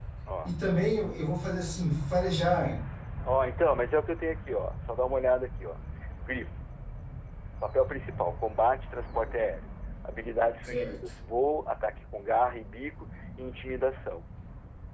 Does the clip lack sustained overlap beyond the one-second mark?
Yes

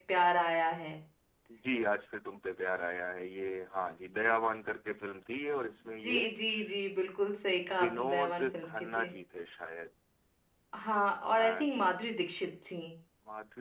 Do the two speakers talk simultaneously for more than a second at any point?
Yes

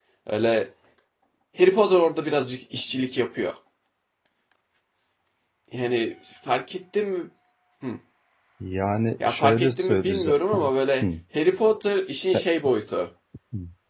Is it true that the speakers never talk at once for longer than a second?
No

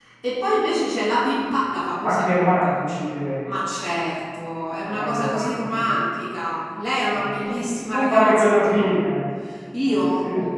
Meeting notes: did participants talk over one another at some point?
Yes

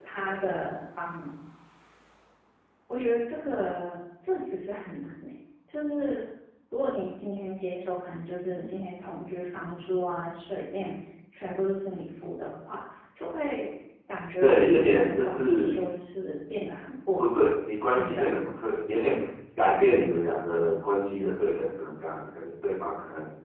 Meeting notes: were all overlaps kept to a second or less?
No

